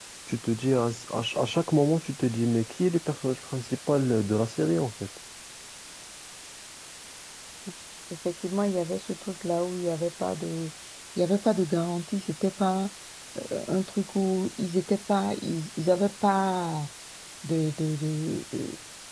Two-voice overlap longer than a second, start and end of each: none

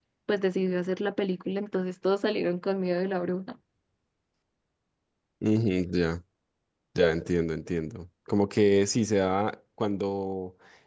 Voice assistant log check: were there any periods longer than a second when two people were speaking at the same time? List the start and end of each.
none

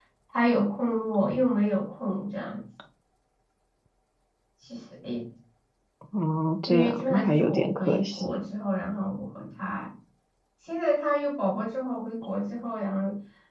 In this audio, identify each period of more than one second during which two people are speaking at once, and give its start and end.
6.7-8.4

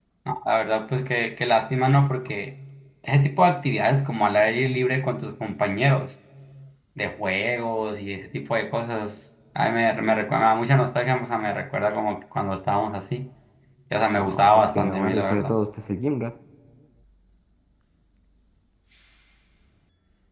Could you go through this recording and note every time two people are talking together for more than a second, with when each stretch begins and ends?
14.2-15.6

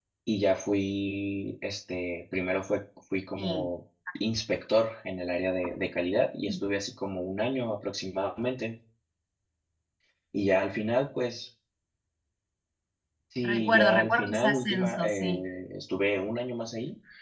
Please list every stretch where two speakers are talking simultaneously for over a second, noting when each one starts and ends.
13.4-15.4

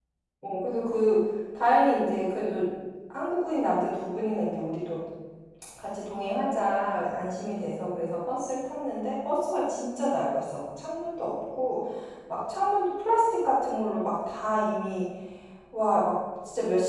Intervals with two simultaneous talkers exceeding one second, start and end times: none

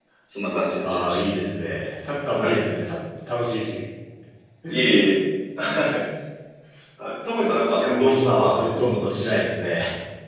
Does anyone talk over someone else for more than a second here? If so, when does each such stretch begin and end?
7.8-9.4

